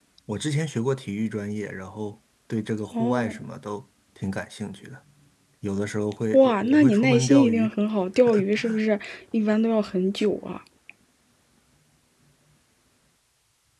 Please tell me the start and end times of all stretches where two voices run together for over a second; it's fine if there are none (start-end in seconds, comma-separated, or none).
6.3-7.7